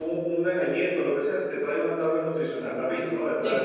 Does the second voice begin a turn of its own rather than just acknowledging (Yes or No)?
Yes